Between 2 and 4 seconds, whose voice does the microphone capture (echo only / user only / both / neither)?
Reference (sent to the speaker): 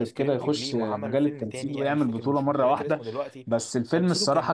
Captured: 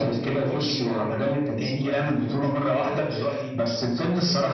echo only